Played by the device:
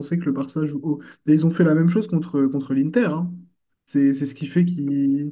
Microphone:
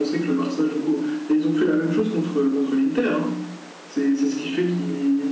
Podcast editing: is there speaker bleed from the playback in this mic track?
Yes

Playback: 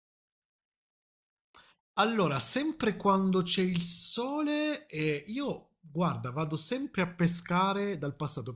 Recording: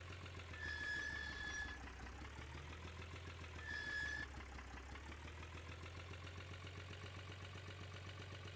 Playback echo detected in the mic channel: No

